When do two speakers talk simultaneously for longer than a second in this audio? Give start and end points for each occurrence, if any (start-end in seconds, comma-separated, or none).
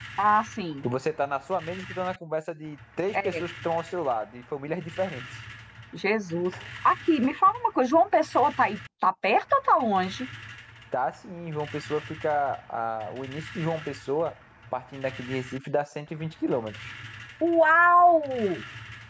none